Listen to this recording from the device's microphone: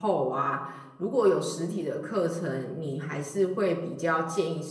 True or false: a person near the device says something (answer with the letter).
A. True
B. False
A